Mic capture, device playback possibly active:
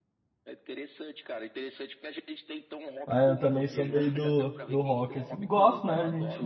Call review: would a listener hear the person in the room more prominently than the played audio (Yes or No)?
Yes